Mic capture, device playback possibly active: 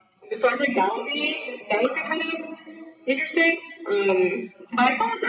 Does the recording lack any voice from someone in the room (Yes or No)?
Yes